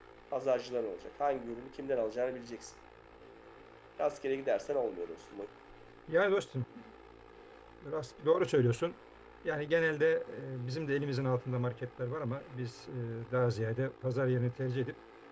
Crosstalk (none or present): none